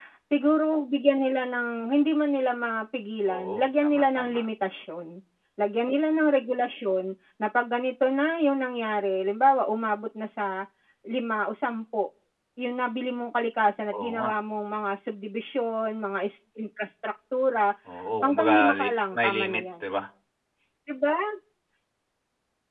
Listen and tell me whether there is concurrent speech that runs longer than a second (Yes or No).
Yes